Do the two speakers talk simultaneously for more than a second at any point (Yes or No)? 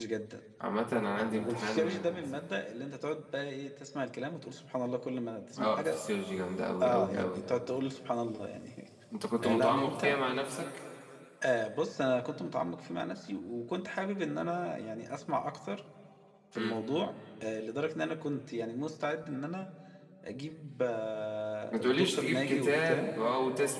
Yes